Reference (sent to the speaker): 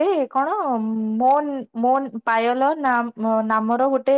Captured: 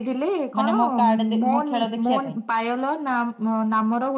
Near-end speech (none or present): present